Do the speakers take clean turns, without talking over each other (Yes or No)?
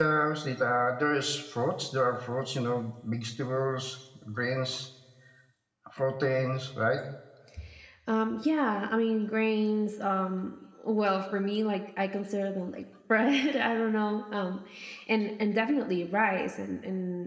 Yes